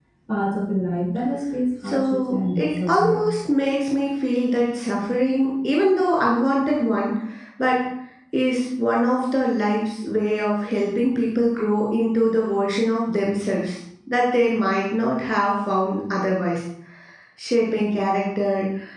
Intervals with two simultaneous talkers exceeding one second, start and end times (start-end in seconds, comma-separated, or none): 1.9-3.2